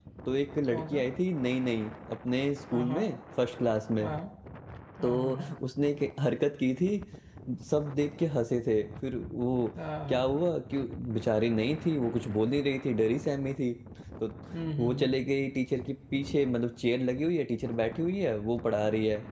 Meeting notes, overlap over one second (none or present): none